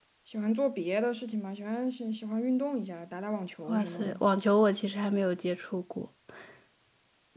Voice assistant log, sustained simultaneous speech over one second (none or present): none